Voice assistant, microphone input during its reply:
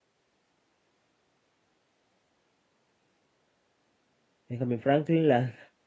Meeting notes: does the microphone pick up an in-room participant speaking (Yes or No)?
Yes